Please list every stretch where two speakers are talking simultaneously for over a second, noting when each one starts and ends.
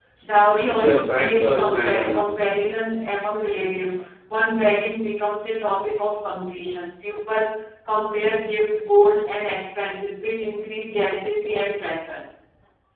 0.7-2.5

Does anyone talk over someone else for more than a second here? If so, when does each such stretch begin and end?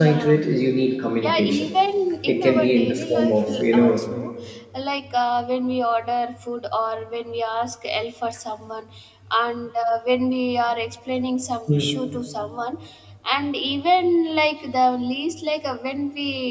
2.3-4.0

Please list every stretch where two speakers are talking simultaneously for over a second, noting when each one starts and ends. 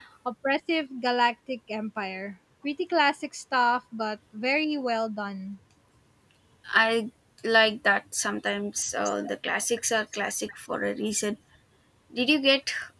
none

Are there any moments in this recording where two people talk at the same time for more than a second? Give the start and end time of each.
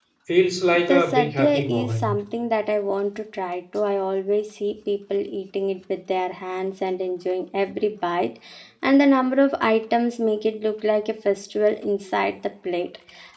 0.9-2.2

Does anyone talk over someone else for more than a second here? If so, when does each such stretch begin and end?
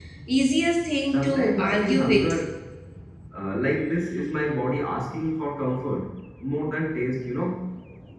1.1-2.3

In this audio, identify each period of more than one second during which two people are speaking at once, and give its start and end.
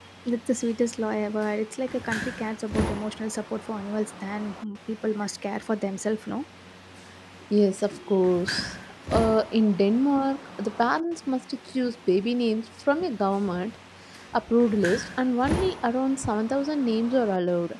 none

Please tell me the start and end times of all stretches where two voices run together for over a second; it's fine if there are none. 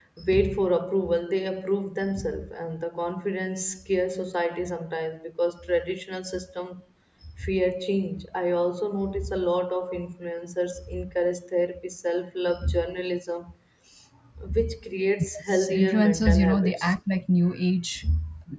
15.5-16.9

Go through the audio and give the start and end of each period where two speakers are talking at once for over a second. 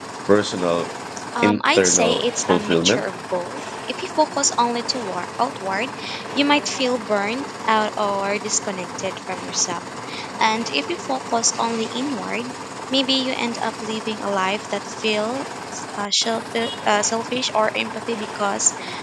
1.4-3.0

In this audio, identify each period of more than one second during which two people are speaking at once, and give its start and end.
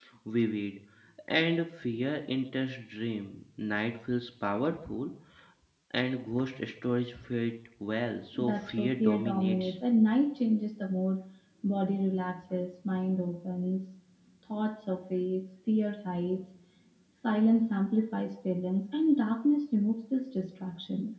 8.3-9.7

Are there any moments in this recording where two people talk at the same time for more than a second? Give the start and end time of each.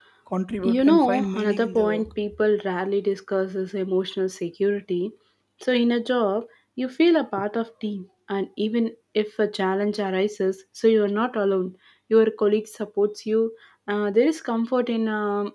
0.6-2.1

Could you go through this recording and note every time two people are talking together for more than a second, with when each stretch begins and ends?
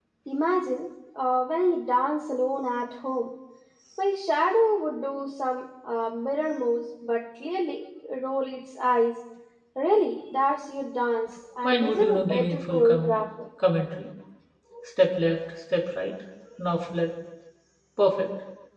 11.6-13.2

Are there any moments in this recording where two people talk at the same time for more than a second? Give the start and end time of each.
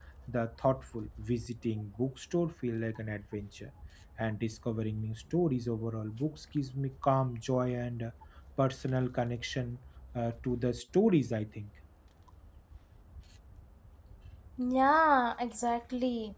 none

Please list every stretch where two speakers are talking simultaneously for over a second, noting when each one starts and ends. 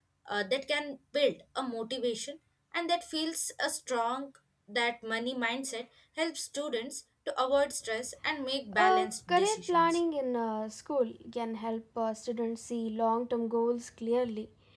8.8-10.0

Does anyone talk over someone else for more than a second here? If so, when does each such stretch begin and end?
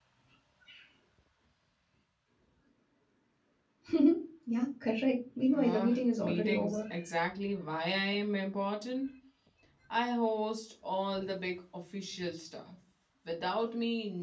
5.5-6.8

